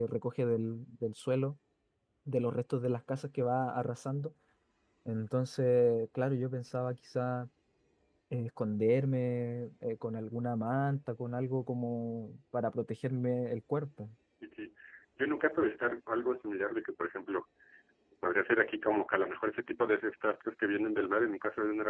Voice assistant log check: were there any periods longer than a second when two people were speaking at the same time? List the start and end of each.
none

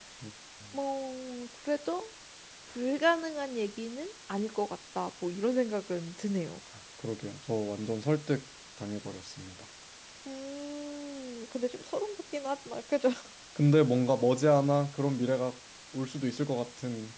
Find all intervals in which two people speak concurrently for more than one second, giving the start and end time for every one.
none

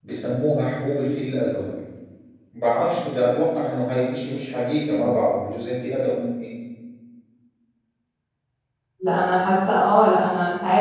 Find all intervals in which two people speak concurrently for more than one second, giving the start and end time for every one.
none

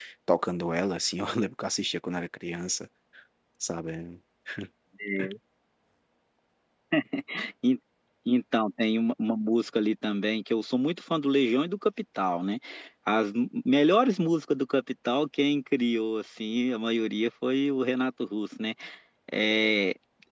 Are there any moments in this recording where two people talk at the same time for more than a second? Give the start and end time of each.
none

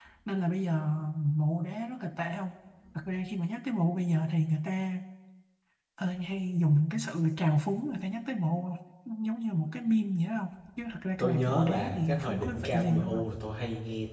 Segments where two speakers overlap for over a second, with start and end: 11.2-13.2

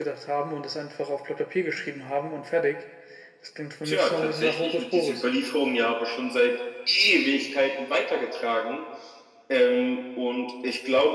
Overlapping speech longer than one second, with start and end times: 3.8-5.3

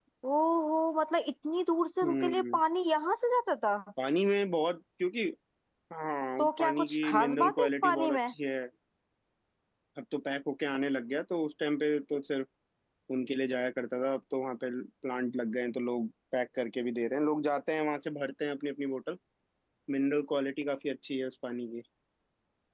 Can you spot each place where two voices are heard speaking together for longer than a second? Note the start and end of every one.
6.4-8.3

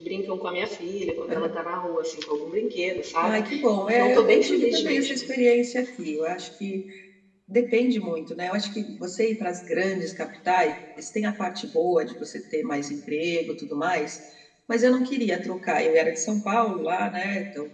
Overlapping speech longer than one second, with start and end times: 3.9-5.2

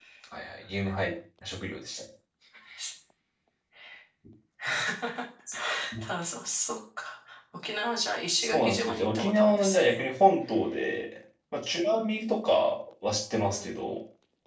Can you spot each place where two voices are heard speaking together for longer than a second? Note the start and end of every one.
8.4-10.0

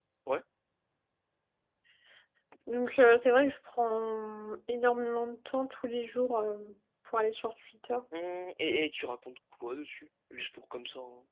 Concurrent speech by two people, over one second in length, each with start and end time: none

